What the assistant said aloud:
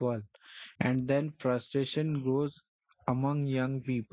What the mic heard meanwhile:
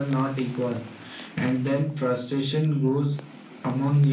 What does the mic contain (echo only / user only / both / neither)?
echo only